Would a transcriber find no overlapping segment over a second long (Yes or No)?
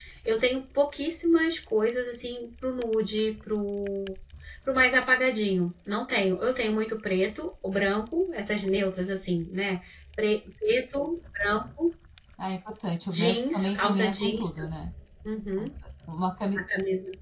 No